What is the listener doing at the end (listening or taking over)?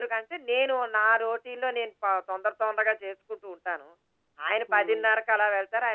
listening